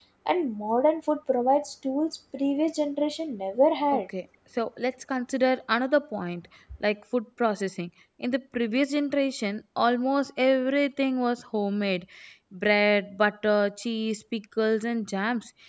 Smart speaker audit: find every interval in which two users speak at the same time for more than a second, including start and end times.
none

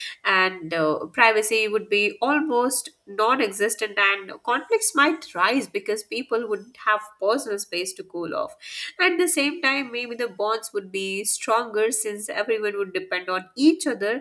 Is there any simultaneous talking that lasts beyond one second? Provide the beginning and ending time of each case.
none

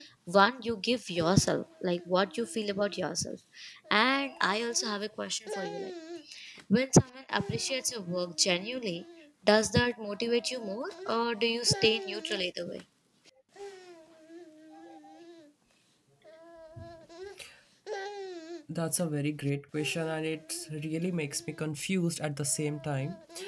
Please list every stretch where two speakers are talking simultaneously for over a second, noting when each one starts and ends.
none

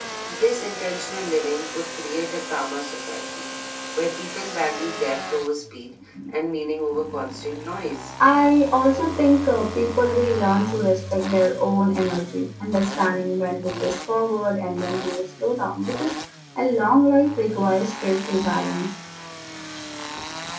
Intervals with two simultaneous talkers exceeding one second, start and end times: none

